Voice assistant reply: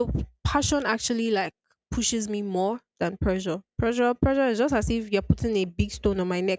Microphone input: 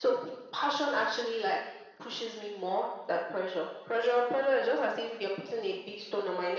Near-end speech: none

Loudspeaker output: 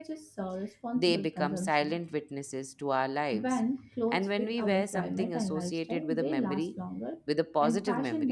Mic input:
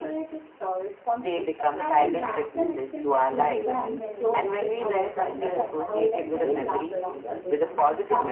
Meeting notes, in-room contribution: present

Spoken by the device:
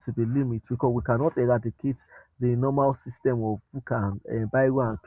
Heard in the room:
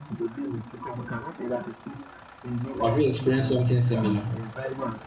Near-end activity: present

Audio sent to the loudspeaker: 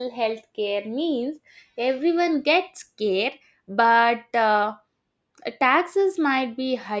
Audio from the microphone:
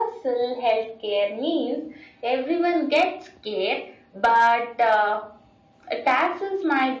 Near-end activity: none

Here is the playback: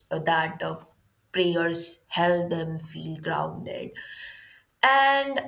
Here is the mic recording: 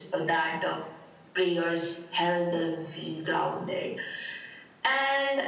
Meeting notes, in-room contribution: none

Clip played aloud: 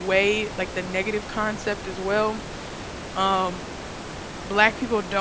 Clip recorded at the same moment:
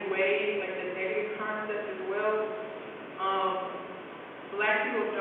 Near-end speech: none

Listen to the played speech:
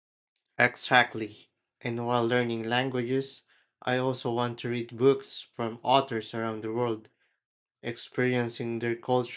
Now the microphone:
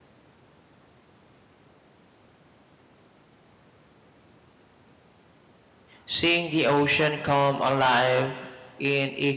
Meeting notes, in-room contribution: present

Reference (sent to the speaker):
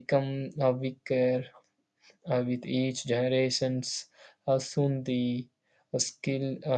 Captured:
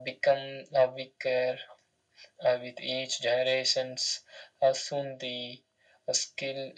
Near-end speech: none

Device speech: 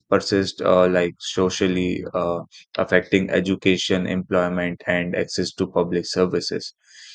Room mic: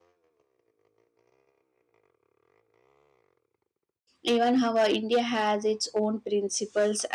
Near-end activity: present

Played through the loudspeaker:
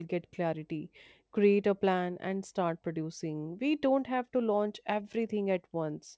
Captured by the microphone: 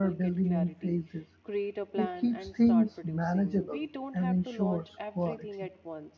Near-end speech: present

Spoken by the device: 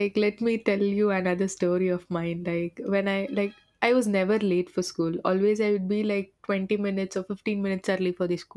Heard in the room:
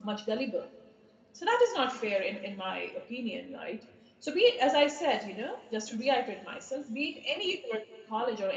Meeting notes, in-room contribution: present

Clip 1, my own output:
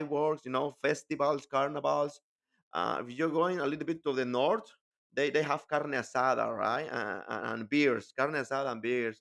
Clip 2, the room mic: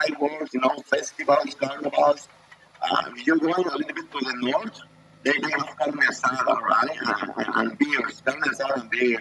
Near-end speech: none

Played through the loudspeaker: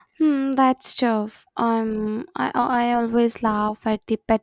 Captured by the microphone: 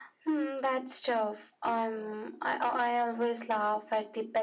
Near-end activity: none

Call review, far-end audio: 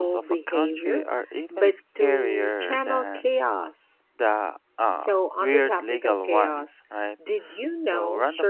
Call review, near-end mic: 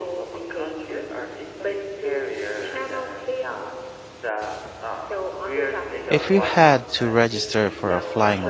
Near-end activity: present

